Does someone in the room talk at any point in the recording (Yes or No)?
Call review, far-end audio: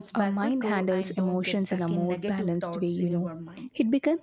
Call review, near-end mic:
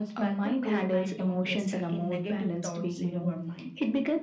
No